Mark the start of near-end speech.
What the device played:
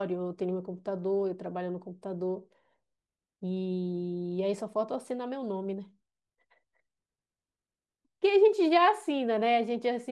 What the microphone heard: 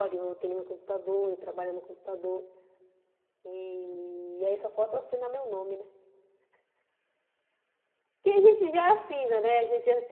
none

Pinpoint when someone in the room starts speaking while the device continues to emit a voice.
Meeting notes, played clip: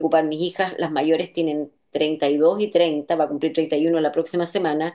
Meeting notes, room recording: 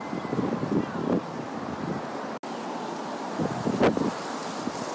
none

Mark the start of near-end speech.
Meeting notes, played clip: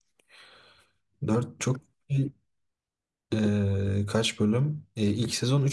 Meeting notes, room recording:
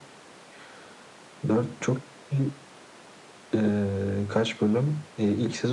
none

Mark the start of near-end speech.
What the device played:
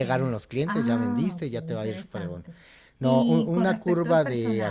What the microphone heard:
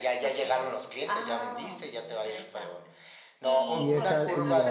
3.7 s

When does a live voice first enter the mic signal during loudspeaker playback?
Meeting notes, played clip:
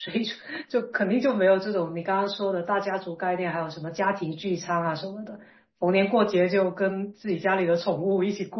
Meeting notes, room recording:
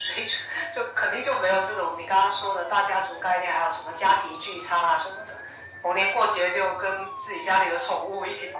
none

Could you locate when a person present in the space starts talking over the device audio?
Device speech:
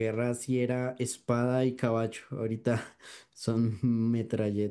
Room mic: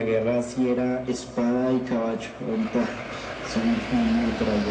none

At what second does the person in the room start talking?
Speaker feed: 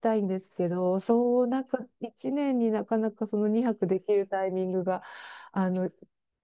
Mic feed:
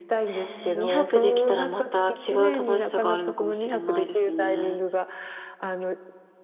0.3 s

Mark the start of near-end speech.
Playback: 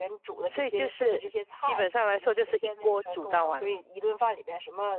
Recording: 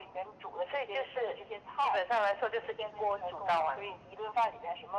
none

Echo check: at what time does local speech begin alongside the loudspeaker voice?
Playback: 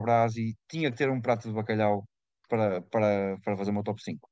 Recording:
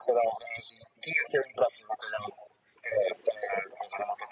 none

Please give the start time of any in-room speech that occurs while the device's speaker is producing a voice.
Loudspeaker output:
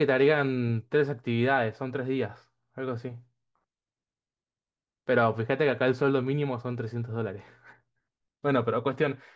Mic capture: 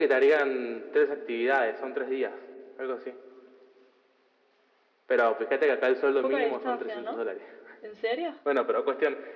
6.2 s

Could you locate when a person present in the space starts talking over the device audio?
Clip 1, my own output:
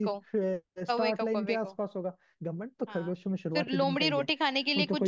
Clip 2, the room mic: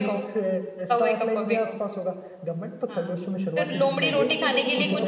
4.2 s

